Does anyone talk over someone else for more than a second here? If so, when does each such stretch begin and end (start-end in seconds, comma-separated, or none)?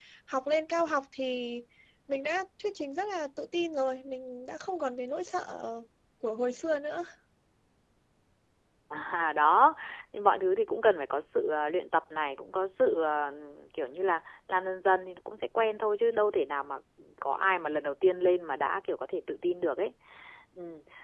none